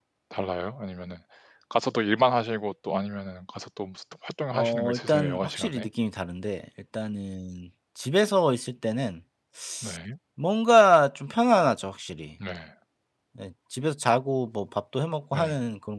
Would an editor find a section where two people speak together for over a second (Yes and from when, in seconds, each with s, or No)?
Yes, from 4.5 s